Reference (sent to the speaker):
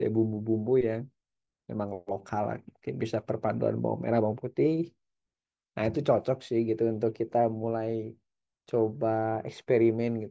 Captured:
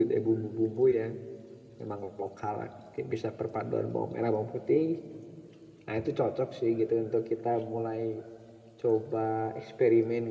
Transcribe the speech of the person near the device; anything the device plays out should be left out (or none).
none